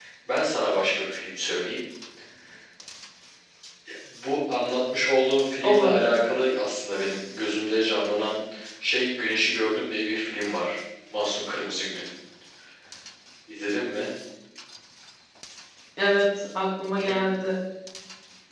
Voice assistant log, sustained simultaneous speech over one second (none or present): none